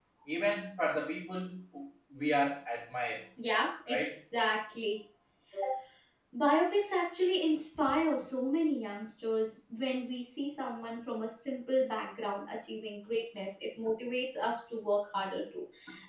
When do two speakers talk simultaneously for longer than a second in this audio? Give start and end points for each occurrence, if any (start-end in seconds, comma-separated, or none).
none